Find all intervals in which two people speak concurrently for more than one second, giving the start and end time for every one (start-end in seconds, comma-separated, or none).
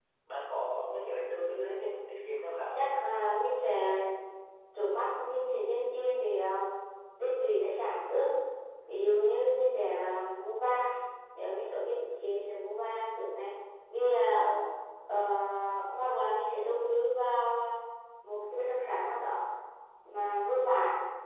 none